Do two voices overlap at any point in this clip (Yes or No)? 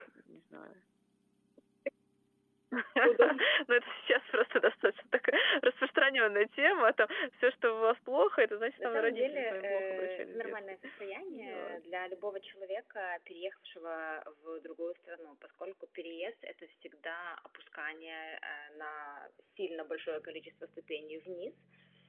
Yes